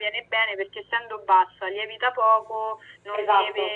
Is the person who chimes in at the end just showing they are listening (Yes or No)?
Yes